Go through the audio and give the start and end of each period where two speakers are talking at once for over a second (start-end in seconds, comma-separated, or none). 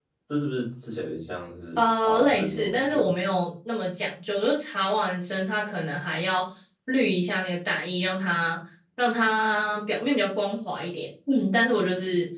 1.8-3.1